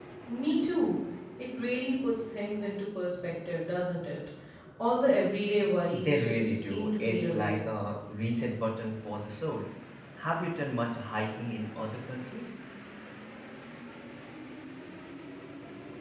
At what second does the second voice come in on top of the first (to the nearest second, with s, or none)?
6 s